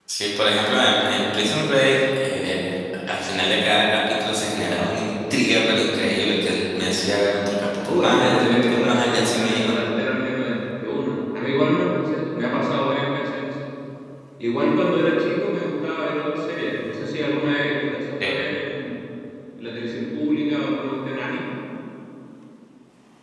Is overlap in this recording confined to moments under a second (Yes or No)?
No